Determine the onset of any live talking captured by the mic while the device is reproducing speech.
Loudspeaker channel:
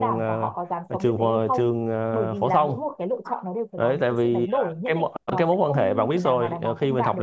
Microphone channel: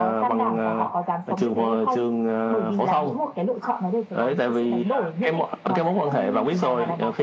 none

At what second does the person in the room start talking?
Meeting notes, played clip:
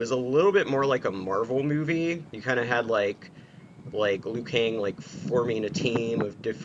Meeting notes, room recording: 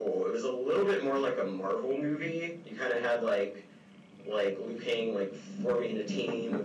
none

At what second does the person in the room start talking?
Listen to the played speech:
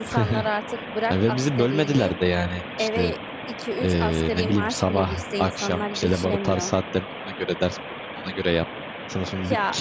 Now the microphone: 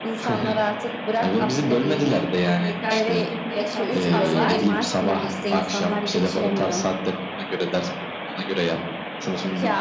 2.5 s

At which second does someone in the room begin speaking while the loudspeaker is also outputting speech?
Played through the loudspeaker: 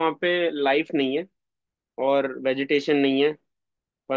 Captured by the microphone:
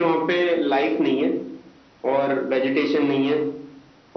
none

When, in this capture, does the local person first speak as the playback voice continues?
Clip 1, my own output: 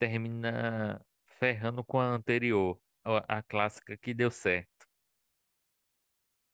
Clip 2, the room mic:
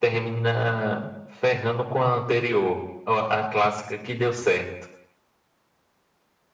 none

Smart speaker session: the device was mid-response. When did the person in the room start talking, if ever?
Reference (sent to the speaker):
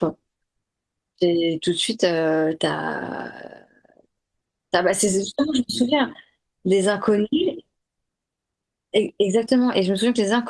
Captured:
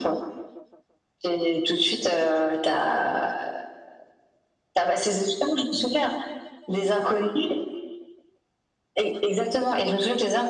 none

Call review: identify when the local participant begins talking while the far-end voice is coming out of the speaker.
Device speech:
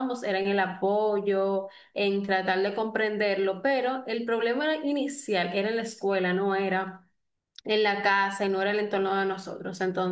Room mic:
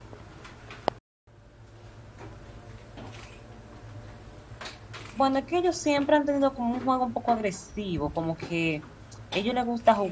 5.1 s

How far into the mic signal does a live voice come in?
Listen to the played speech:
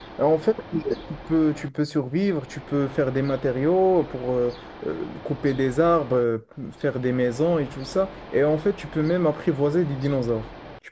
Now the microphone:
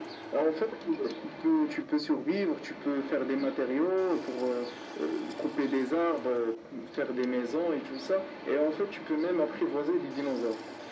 none

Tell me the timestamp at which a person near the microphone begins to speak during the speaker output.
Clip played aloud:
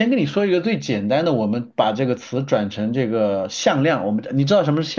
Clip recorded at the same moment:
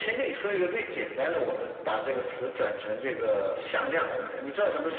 none

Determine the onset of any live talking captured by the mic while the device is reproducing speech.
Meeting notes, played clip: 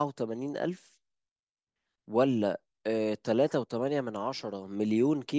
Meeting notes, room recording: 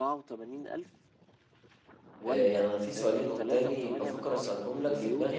2.3 s

